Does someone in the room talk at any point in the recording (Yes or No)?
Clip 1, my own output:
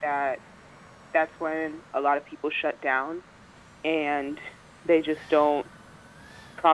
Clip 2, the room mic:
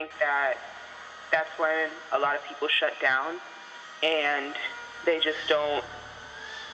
No